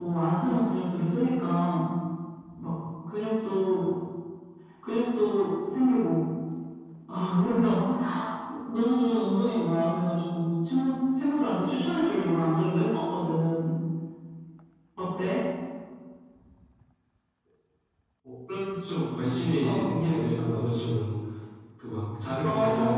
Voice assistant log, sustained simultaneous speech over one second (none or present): none